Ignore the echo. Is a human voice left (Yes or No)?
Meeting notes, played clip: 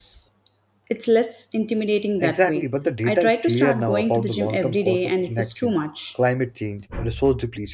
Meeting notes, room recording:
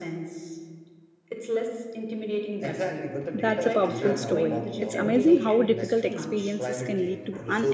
Yes